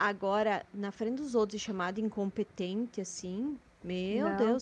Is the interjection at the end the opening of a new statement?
Yes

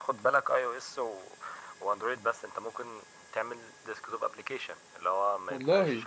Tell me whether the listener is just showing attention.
Yes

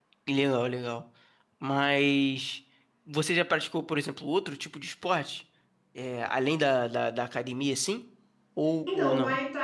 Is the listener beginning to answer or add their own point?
Yes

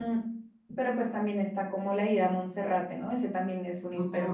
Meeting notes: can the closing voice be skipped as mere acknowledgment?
No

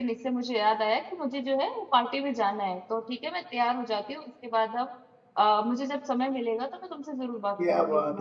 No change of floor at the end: No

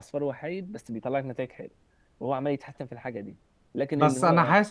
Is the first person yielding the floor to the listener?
Yes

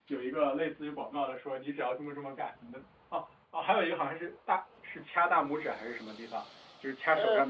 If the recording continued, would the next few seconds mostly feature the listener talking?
No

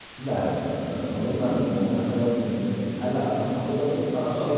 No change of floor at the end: No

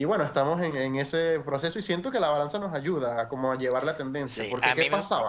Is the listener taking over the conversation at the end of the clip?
Yes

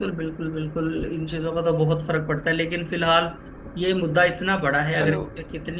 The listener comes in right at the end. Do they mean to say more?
No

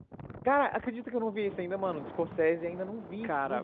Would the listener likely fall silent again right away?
No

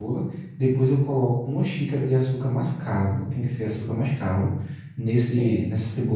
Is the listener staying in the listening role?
Yes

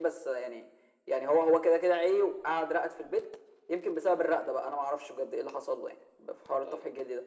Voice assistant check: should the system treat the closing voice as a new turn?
No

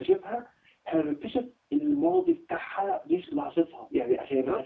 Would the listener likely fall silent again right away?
Yes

